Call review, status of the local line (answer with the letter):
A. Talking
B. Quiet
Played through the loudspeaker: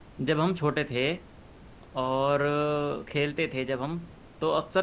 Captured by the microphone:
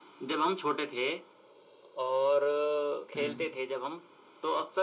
A